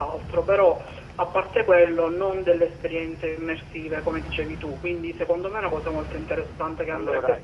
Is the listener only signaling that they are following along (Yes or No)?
No